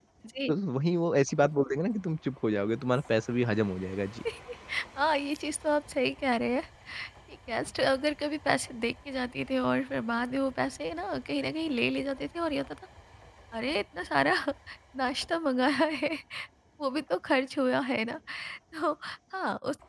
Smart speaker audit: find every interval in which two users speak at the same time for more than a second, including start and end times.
none

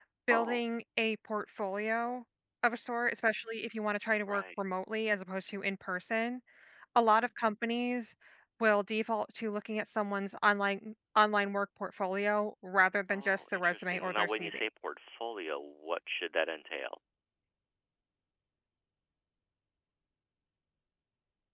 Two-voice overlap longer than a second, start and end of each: 13.1-14.6

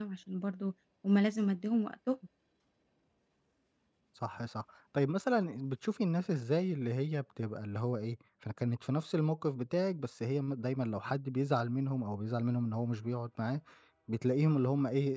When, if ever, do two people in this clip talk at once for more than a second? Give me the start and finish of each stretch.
none

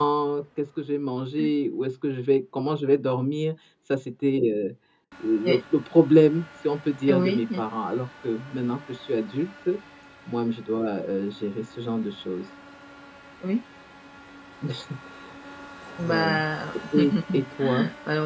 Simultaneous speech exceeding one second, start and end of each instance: none

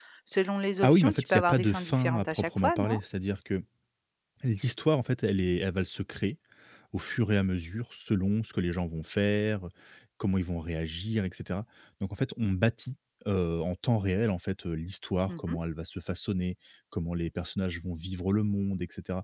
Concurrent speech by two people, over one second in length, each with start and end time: 0.8-3.0

